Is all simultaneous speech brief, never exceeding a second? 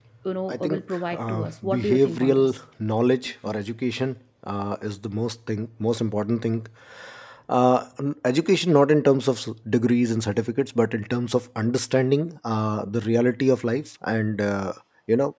No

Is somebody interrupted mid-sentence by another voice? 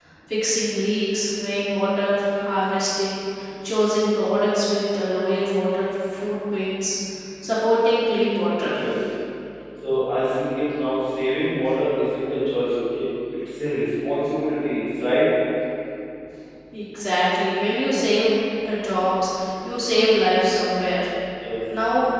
No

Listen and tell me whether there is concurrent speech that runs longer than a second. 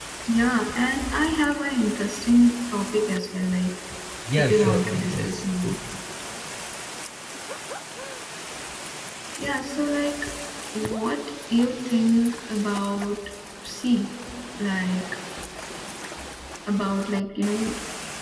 Yes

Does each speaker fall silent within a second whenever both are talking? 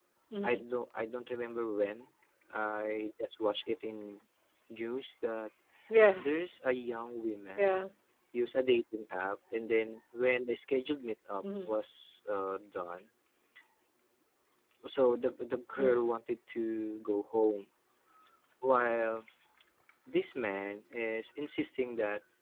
Yes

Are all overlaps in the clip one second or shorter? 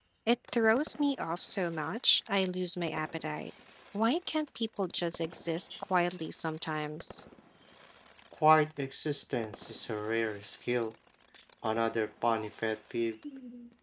Yes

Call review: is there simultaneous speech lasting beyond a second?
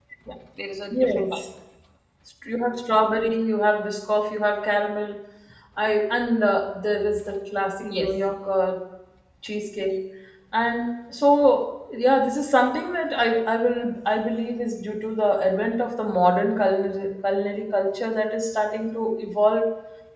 No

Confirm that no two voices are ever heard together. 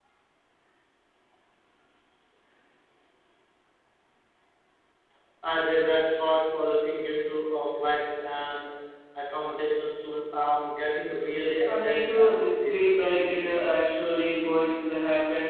No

